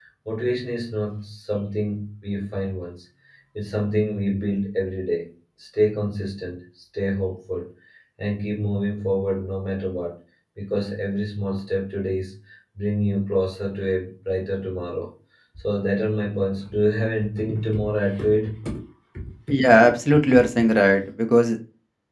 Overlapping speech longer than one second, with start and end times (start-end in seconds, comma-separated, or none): none